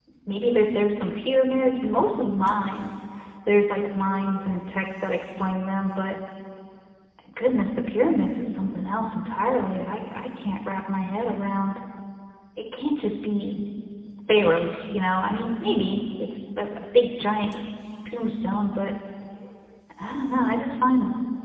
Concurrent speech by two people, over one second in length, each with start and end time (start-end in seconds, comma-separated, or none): none